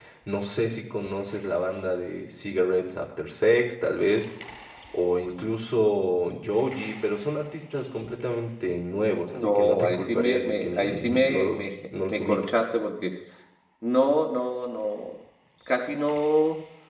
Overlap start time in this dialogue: 9.3 s

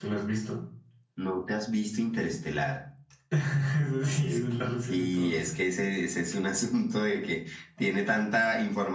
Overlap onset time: 4.2 s

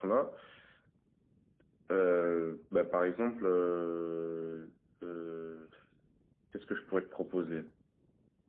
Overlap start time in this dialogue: none

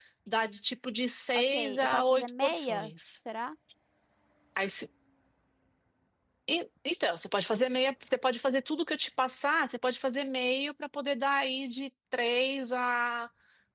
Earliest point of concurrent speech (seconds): 1.3 s

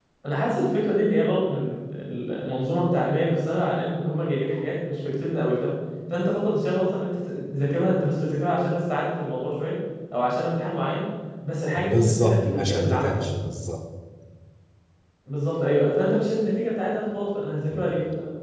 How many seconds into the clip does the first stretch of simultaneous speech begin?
11.8 s

